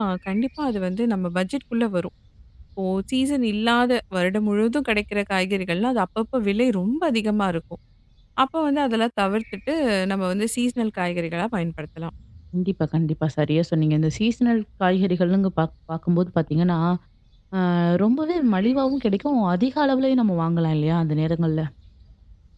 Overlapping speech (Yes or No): No